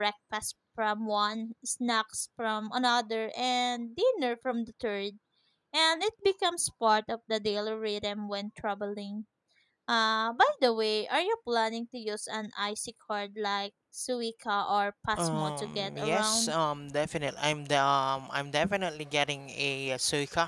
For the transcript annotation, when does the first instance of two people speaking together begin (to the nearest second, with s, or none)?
15 s